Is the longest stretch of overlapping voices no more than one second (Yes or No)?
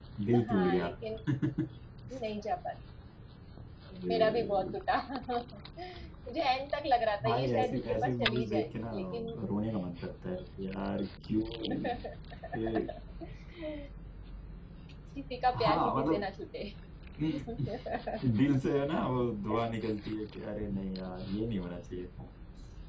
No